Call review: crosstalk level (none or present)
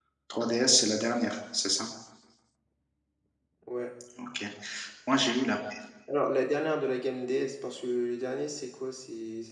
none